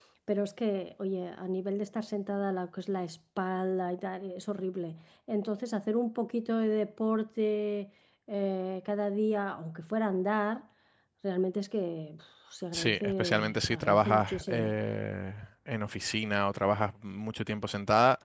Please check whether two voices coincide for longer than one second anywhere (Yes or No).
Yes